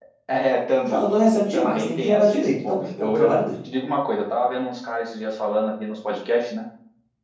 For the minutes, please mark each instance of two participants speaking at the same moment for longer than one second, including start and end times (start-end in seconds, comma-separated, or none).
1.5-3.4